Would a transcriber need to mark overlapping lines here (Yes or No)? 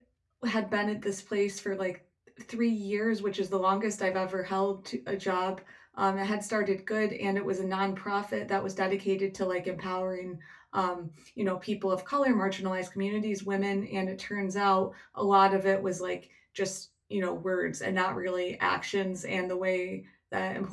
No